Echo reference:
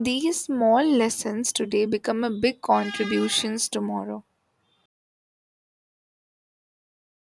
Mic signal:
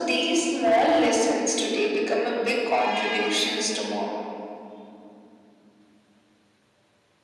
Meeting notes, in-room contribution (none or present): none